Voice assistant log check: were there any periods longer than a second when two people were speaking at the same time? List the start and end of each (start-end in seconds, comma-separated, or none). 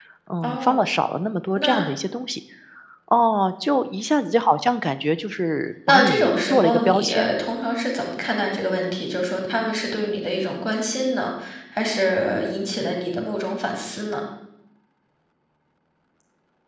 5.9-7.3